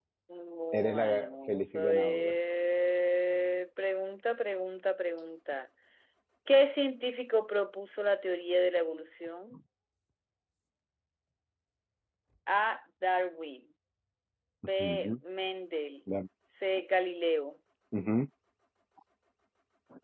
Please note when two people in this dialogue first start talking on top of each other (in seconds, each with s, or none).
0.7 s